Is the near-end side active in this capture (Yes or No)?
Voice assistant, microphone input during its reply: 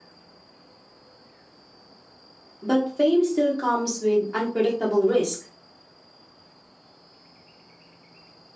Yes